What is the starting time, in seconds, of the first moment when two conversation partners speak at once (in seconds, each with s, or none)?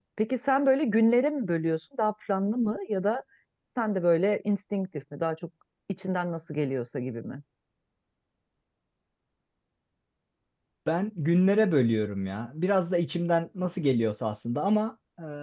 none